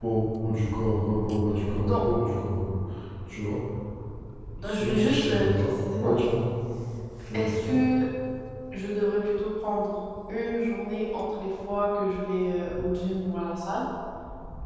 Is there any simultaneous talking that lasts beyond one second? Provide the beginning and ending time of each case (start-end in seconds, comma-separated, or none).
4.6-6.2